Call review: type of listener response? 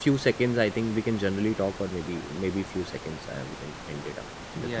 taking over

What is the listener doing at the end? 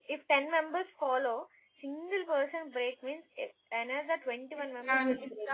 taking over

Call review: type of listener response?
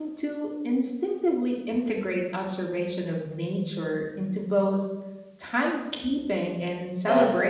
taking over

